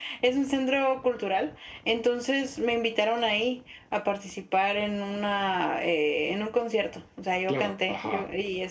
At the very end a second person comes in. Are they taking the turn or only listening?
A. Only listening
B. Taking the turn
A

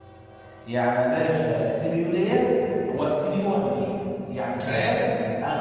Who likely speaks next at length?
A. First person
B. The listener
A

